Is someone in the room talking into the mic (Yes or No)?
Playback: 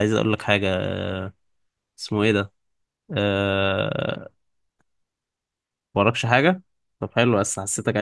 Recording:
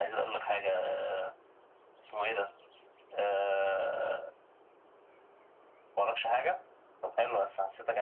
No